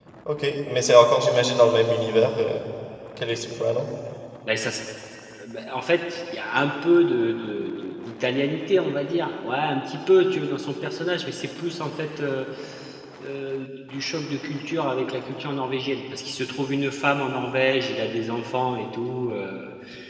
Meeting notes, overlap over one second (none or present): none